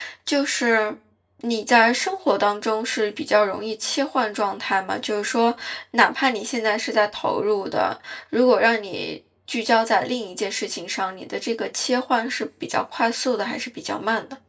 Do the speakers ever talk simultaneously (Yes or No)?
No